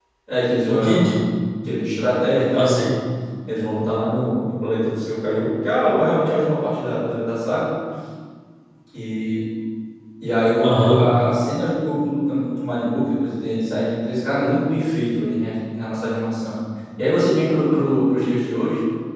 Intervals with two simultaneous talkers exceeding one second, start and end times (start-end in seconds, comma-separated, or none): none